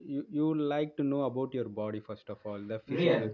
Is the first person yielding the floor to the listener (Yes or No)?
No